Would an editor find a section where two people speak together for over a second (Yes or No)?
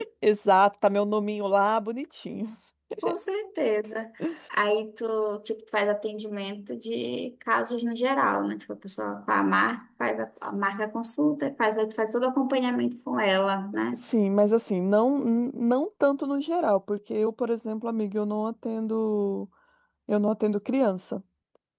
No